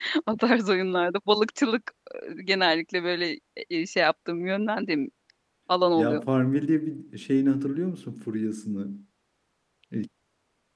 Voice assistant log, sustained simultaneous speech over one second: none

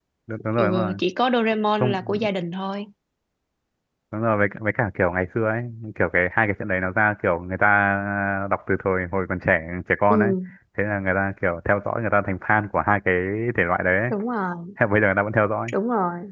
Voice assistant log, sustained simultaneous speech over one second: none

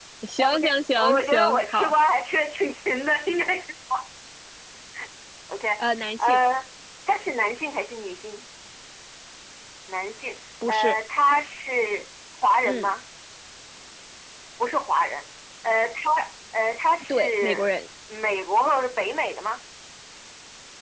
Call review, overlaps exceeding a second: present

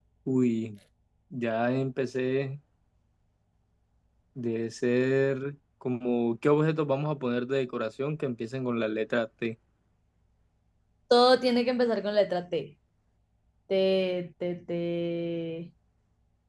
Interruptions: none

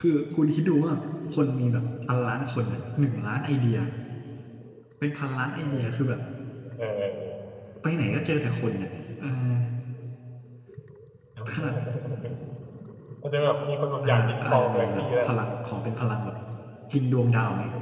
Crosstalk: present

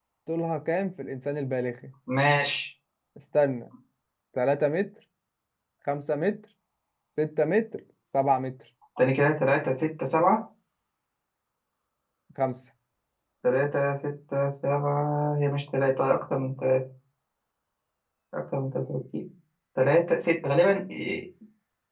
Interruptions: none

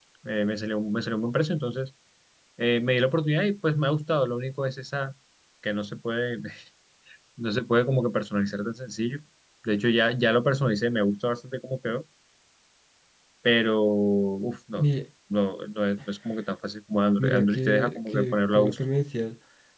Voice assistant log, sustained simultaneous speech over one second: present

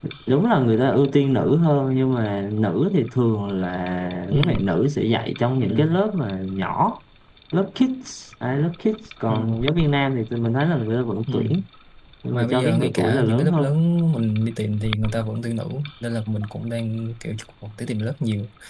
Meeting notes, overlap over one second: present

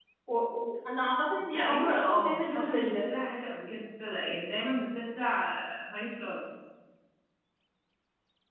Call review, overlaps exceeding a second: present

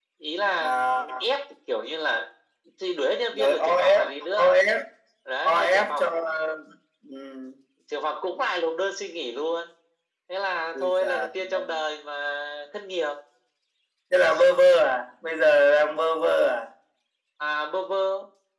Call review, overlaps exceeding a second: present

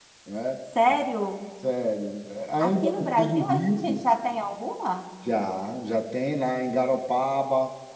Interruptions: present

